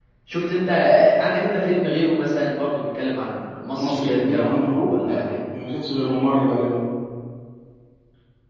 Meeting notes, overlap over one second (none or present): present